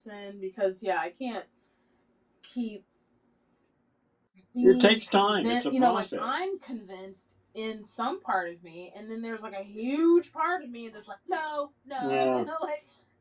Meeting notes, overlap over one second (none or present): present